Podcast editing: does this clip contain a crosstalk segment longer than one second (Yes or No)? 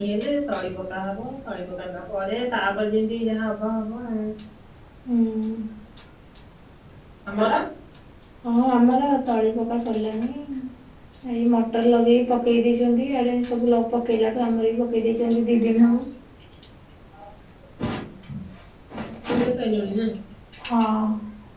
No